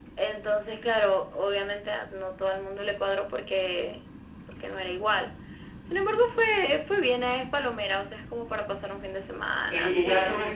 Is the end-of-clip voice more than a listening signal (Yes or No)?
Yes